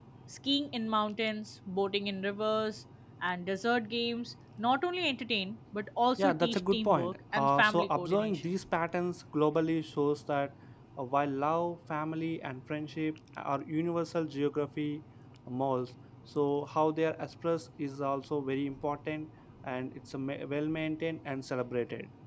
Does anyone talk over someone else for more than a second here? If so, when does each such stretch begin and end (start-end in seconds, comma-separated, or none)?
6.2-8.6